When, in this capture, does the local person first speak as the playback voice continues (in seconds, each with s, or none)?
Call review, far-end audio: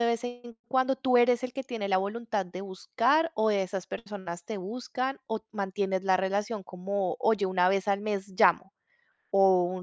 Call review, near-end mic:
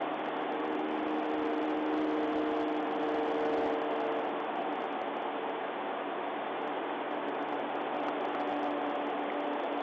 none